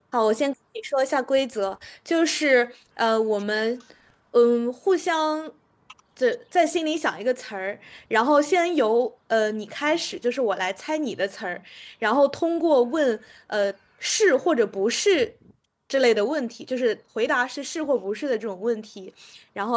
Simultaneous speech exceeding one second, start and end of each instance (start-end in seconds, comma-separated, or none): none